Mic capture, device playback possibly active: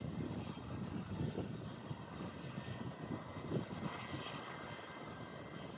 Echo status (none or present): none